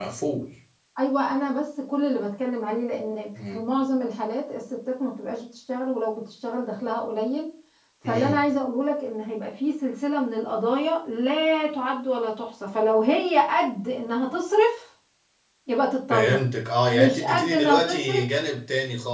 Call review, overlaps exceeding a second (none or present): present